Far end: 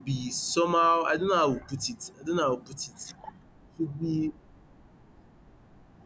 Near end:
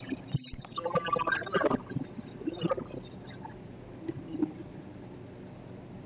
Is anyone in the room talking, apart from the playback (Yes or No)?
No